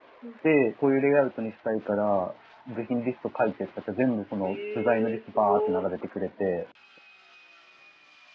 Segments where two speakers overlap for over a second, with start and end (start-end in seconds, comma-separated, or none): 4.4-5.9